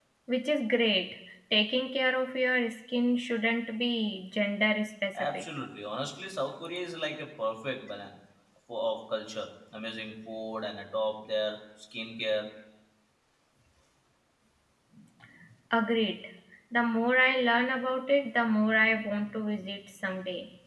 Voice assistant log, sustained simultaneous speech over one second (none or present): none